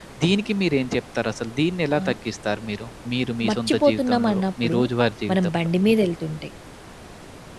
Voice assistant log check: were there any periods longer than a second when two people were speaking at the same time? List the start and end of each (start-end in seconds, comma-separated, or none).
3.5-4.8